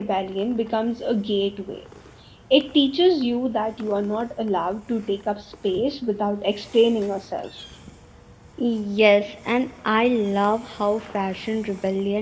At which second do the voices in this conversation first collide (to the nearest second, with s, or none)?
none